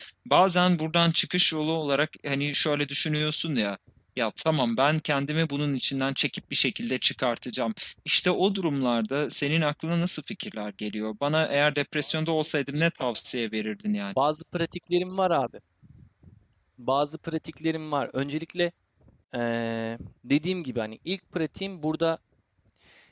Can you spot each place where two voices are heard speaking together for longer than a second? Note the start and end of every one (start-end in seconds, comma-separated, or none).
none